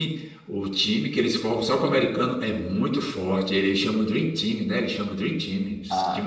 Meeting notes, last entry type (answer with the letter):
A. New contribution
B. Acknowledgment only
A